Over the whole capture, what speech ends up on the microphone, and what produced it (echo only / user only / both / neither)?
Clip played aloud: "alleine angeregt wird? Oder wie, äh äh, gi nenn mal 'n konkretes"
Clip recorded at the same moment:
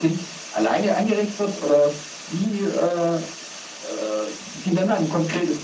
echo only